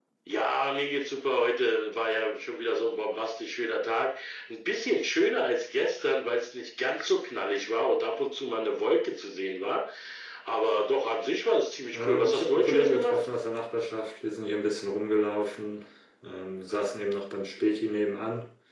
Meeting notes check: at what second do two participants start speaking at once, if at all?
12 s

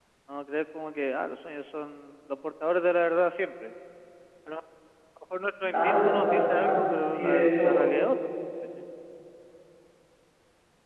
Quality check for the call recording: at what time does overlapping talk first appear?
6 s

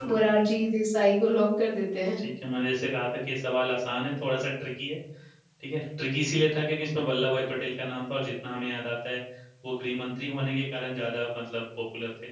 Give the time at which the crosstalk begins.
none

